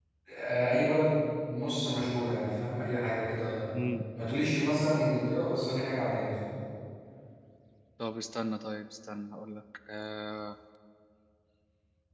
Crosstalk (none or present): none